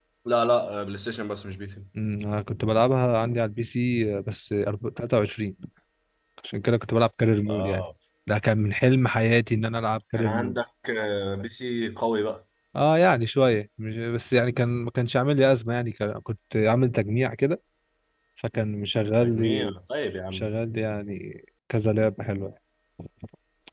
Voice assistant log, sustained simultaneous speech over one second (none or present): none